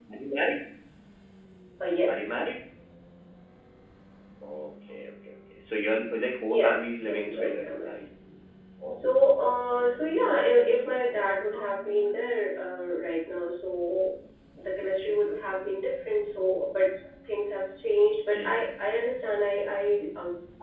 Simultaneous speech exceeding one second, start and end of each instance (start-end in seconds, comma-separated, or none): 6.6-7.9